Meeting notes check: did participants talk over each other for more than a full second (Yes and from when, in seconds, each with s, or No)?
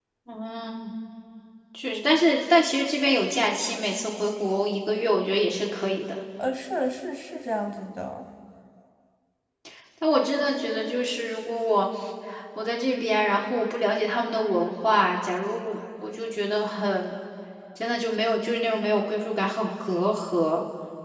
No